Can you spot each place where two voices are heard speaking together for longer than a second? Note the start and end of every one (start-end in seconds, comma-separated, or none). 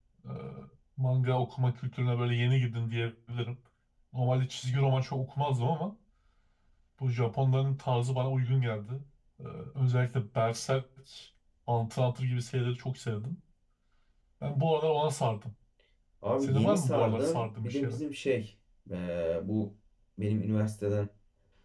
16.4-18.0